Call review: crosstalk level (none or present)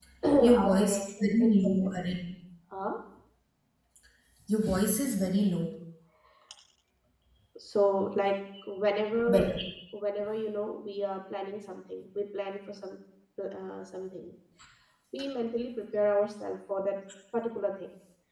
present